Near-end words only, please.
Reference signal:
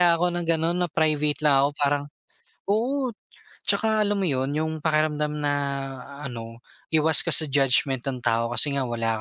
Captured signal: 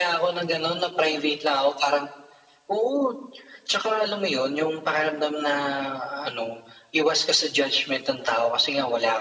none

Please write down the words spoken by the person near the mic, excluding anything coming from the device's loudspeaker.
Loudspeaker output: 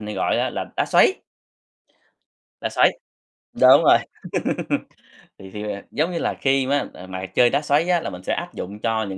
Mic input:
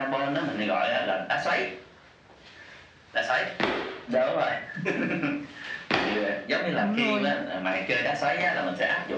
Đúng rồi.

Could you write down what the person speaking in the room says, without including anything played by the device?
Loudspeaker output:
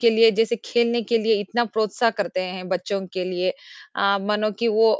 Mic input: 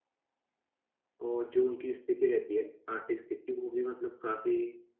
और जो उनकी स्थिति रहती है, आर्थिक स्थिति वो भी मतलब काफ़ी

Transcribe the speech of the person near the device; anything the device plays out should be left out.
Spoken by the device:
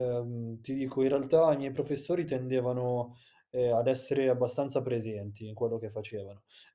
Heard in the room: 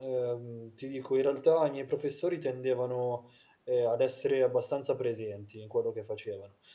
none

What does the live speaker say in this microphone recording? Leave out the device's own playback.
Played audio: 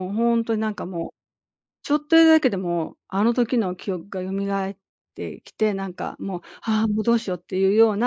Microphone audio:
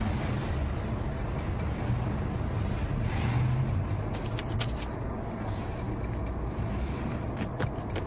none

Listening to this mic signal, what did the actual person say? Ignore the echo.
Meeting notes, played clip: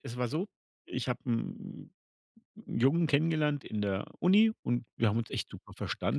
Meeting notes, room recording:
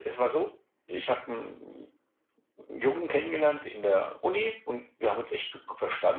none

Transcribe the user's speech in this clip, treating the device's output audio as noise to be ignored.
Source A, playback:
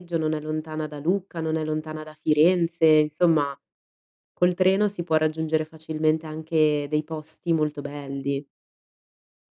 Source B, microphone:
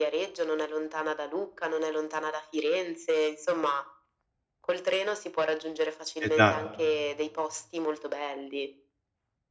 Esa

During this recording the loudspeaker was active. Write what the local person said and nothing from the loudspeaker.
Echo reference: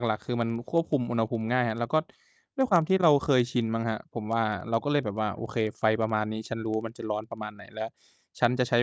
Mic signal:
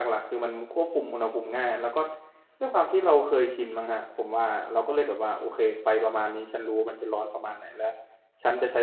none

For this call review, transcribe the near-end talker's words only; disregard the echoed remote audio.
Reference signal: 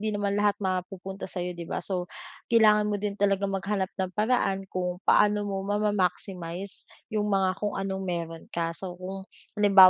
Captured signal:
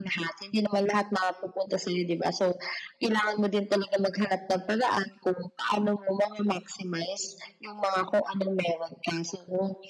none

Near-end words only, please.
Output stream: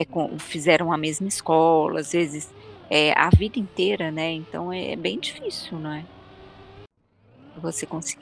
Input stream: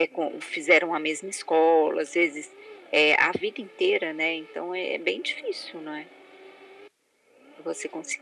none

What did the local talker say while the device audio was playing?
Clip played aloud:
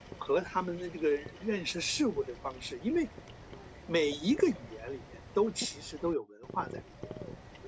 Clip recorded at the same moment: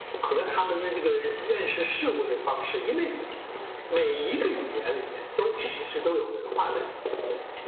none

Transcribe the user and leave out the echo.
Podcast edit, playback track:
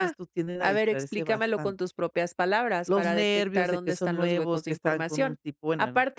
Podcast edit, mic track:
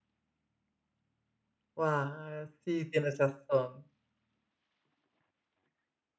Wa Sí, tienes razón.

